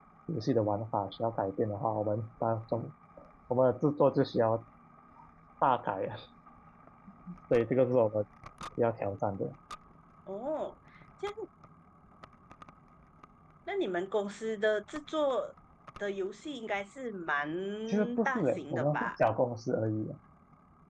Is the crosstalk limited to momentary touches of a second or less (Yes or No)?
No